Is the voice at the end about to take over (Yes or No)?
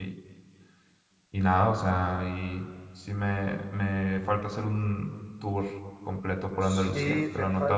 Yes